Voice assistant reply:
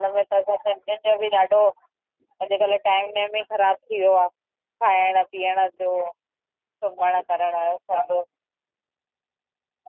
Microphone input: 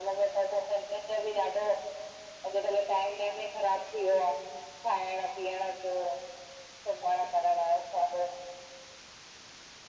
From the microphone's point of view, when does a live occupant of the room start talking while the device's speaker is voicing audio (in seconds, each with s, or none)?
none